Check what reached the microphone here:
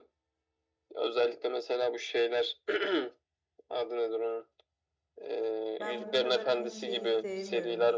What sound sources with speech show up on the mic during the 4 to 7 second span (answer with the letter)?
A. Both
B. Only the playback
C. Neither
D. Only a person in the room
A